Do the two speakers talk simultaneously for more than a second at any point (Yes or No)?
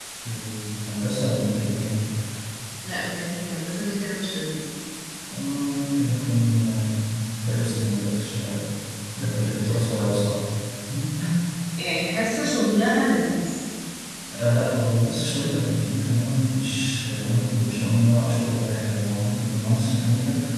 No